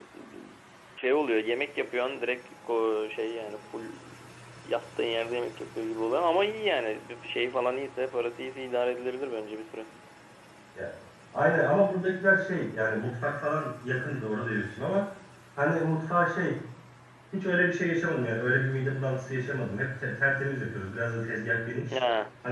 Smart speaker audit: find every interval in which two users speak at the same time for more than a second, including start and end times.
none

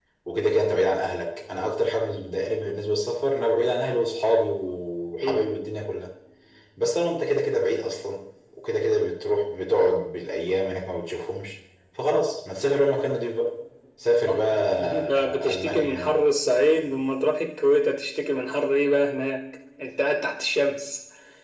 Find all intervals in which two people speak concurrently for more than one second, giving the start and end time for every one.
14.2-16.2

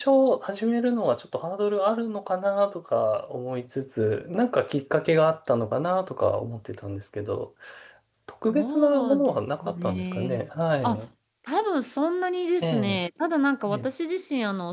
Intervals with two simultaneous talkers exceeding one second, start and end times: 8.5-10.4

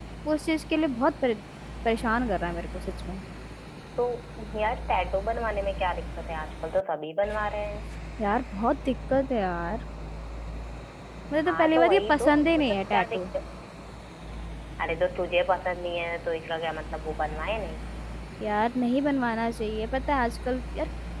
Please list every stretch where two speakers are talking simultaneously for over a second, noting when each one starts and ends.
11.4-13.2

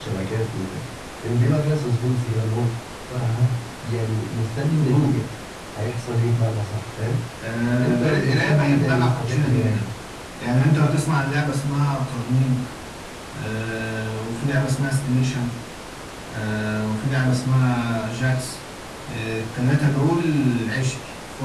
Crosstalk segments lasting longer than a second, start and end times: 7.8-9.8

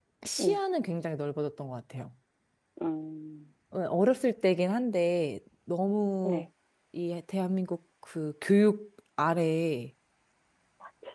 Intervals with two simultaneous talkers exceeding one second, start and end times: none

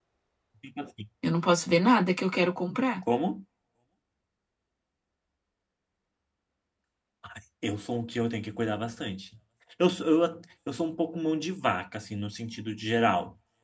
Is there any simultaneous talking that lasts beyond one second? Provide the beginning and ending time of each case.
none

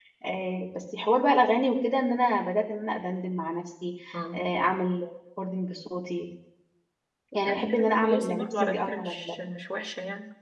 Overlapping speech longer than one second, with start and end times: 7.5-9.3

